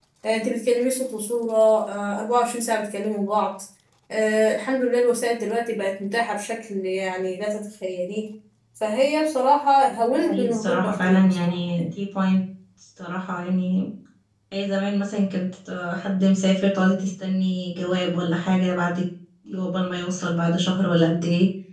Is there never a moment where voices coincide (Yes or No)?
No